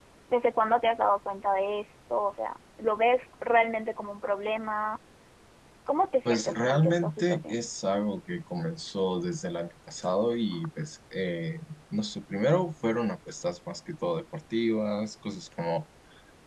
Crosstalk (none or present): present